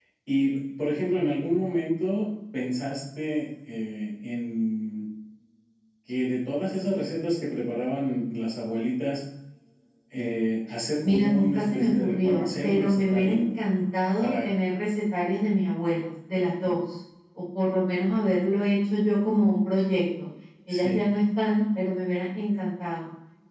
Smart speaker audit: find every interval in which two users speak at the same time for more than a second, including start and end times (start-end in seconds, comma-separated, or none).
11.0-13.4